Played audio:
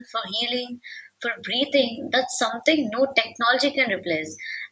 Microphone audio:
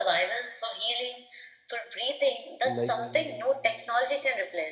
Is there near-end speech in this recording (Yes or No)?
Yes